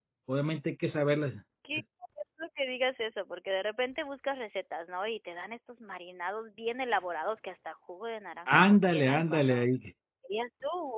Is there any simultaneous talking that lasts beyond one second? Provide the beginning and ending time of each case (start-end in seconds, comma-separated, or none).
8.5-9.7